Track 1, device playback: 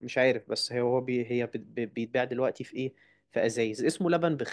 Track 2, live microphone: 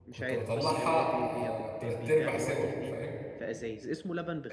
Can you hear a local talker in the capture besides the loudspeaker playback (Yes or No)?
Yes